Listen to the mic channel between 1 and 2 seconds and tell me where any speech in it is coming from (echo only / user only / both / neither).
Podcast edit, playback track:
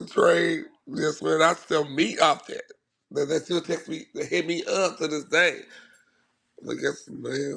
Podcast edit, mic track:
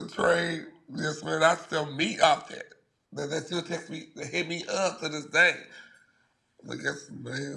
echo only